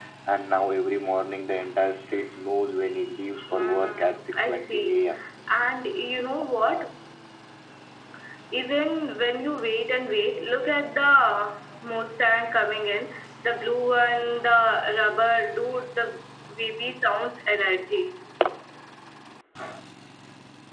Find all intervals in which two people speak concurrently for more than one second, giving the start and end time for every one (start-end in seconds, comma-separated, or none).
3.5-5.0